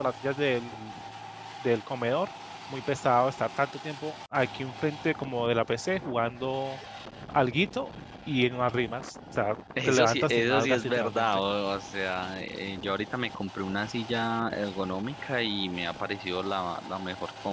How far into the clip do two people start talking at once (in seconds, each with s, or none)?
9.8 s